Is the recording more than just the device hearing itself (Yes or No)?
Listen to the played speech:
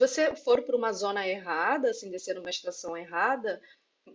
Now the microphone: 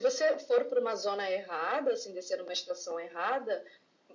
No